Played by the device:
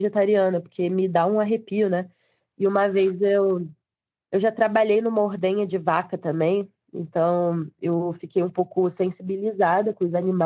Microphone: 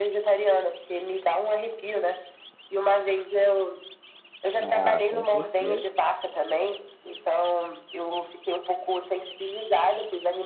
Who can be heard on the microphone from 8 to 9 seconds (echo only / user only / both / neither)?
echo only